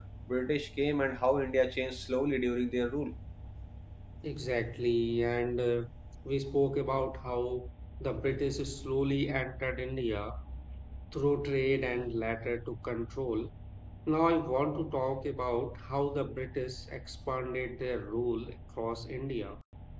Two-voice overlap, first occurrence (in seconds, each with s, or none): none